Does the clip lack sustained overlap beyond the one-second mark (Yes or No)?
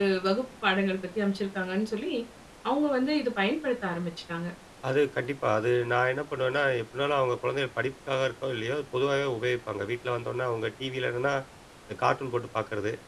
Yes